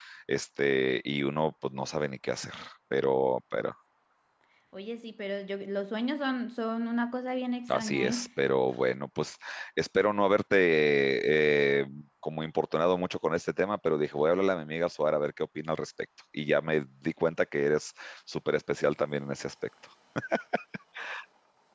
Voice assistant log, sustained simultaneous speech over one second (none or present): none